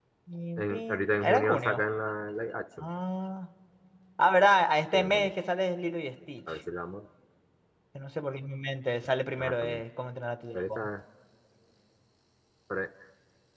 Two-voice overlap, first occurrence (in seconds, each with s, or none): 0.6 s